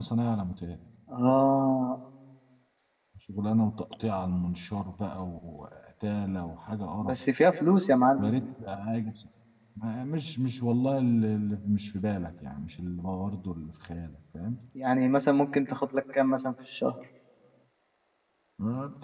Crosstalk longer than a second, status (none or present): none